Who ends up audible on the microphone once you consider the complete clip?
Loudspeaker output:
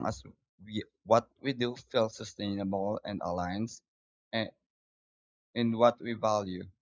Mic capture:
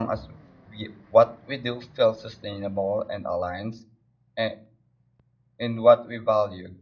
echo only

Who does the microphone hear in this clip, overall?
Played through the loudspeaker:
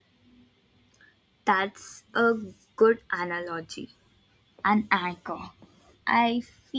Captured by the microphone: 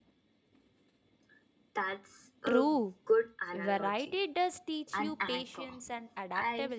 both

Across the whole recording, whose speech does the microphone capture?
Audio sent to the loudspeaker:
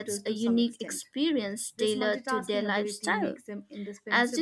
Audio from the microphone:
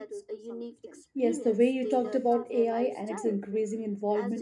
both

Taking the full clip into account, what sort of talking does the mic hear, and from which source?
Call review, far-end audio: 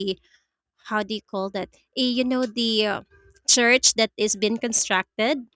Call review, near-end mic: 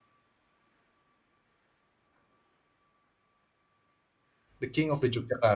user only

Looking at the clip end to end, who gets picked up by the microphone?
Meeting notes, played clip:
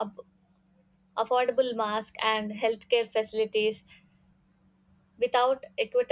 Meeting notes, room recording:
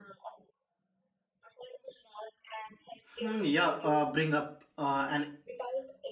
both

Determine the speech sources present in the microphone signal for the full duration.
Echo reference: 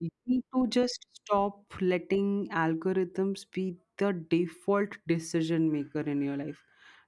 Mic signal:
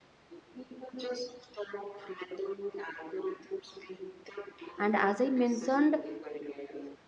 both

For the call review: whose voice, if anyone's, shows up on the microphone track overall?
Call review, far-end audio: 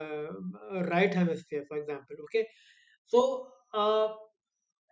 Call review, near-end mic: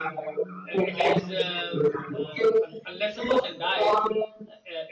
both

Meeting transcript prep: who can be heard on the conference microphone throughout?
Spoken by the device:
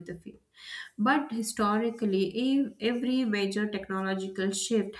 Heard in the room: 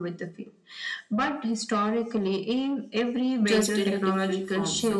both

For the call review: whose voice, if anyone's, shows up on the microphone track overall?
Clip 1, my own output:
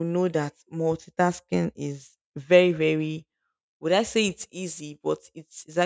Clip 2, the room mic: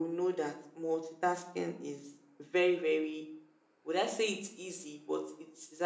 echo only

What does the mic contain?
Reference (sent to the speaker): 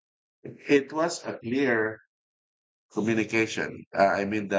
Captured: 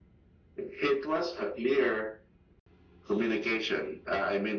echo only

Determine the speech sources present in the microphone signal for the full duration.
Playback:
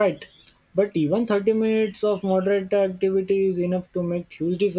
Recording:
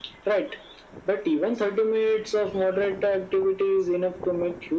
echo only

